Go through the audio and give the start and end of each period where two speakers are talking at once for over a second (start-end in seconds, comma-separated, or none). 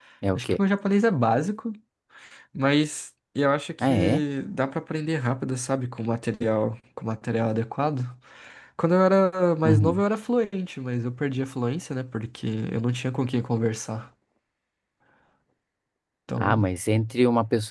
none